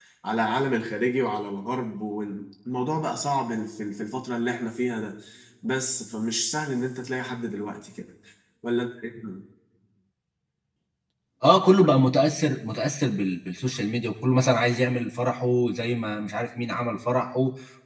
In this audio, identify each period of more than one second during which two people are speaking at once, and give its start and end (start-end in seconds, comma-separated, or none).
none